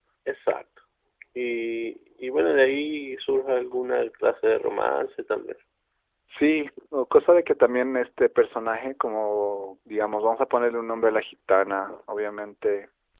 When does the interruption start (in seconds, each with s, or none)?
none